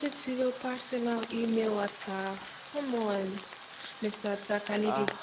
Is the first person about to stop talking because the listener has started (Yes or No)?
No